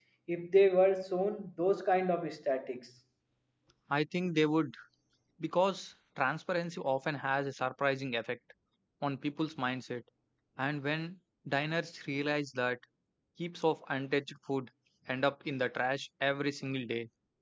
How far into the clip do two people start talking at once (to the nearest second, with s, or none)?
none